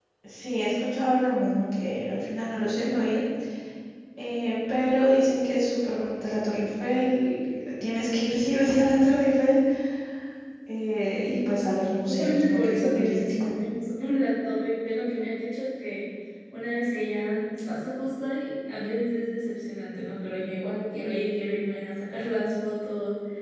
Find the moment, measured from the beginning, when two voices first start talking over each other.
11.3 s

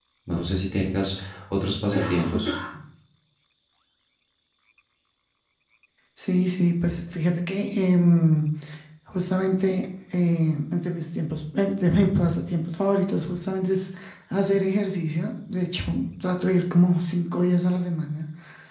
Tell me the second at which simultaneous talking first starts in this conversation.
none

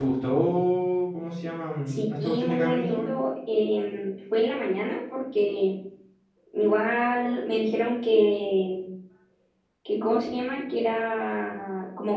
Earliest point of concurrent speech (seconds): 1.9 s

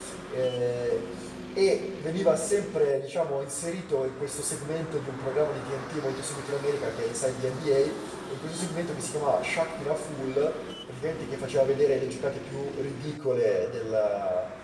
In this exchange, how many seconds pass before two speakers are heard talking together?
none

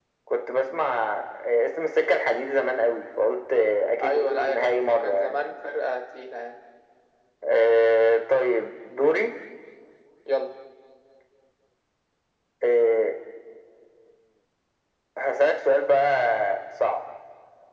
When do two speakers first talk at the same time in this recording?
4.0 s

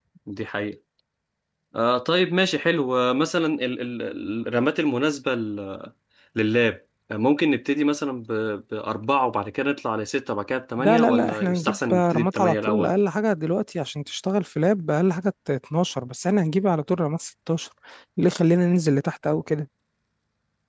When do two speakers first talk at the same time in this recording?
10.8 s

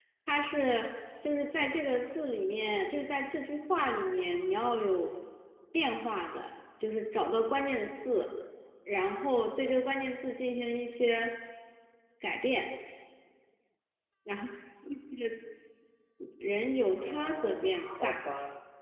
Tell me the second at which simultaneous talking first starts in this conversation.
17.0 s

